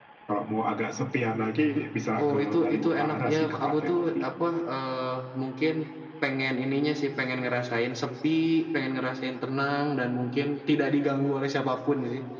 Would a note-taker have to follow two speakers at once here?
Yes, from 2.2 s

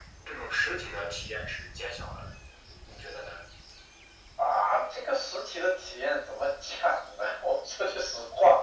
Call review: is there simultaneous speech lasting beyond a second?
No

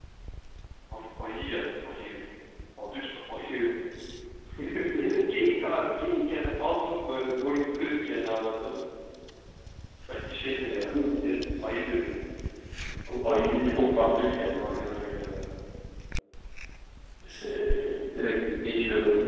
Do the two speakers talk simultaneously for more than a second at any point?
No

